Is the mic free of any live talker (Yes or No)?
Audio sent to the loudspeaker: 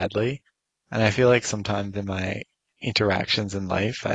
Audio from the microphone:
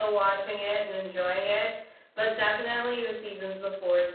No